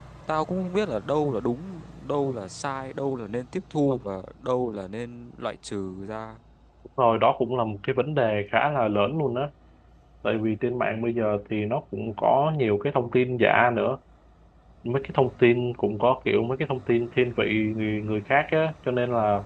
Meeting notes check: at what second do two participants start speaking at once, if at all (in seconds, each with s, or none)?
none